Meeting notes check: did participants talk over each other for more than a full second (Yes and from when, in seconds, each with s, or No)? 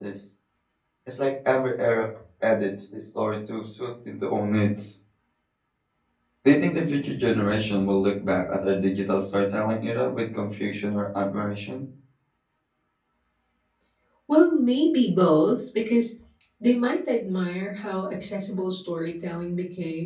No